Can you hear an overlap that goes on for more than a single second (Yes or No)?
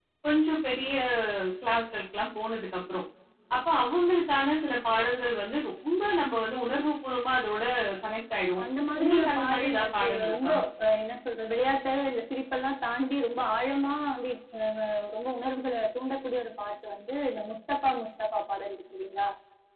Yes